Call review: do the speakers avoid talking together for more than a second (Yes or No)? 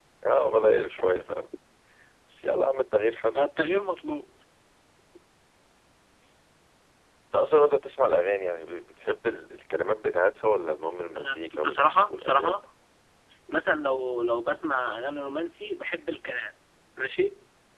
No